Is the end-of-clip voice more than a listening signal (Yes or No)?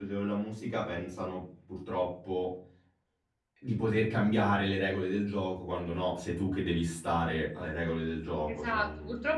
Yes